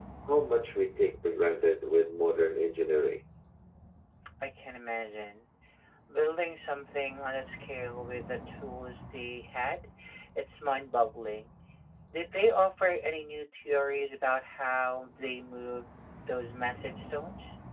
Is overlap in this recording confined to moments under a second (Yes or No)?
Yes